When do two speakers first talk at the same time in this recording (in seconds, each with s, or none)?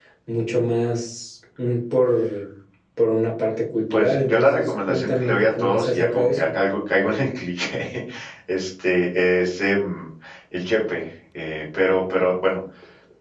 3.9 s